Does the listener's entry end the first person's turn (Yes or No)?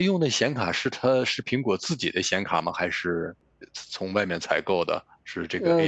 Yes